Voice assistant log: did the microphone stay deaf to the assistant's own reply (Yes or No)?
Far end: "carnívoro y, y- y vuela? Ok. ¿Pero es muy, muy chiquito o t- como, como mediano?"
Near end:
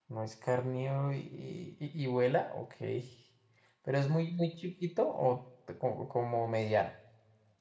No